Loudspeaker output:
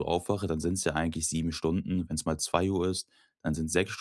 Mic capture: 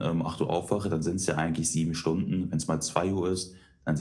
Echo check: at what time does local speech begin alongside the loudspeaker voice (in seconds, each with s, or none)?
none